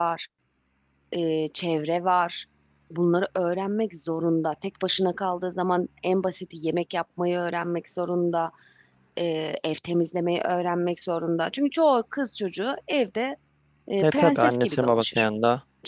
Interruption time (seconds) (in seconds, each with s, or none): 14.0 s